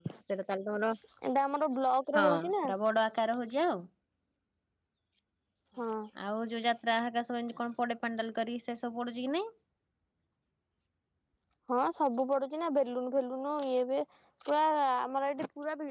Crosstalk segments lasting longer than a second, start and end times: none

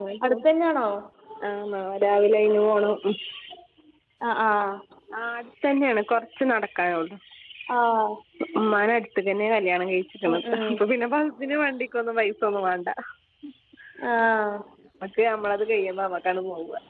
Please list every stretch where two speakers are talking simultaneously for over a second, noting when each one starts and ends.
none

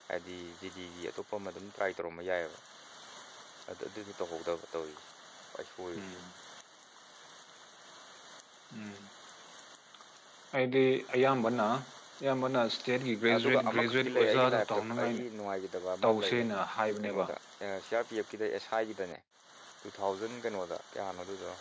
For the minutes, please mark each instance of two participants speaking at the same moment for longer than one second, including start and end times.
13.3-15.2

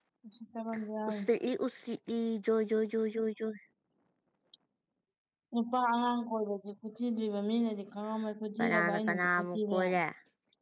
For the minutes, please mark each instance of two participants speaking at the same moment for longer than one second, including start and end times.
8.6-10.0

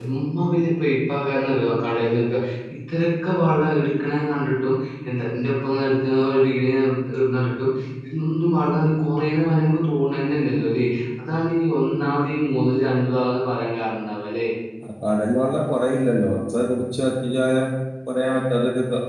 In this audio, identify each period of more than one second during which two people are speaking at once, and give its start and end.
none

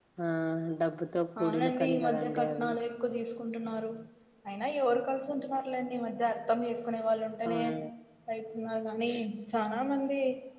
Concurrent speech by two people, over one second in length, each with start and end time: 1.4-2.7

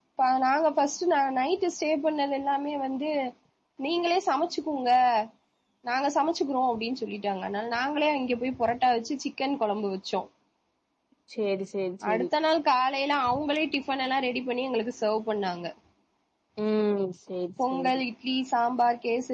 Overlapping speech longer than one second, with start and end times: none

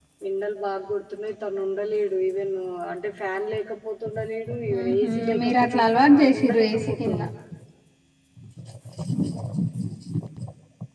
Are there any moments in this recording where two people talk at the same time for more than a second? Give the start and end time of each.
4.7-7.2

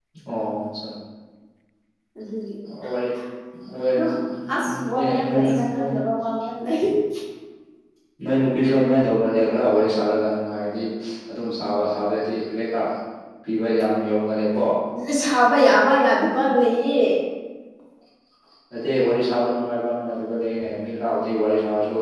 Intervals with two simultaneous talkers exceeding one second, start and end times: 4.5-5.9

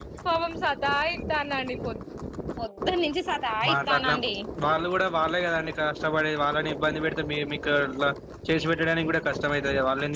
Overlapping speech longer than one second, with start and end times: none

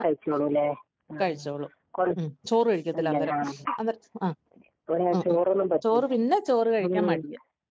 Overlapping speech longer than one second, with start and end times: none

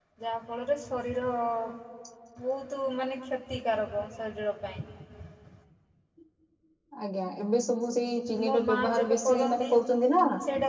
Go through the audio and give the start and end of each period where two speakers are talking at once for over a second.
8.5-9.7

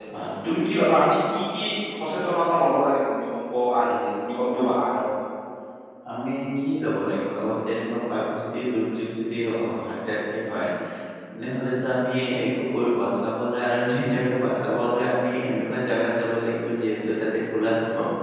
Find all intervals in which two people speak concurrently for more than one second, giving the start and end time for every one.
none

